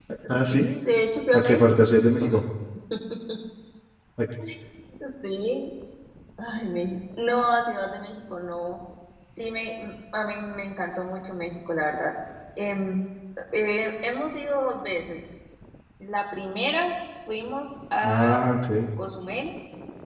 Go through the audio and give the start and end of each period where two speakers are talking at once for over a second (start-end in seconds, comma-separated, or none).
none